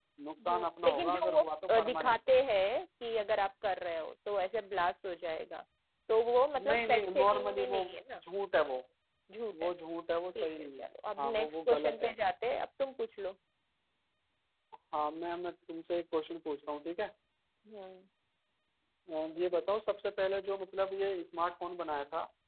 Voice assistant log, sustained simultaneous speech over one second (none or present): present